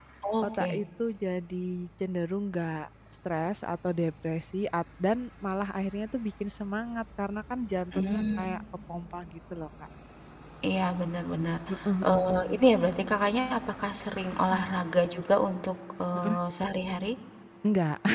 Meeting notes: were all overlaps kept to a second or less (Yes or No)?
Yes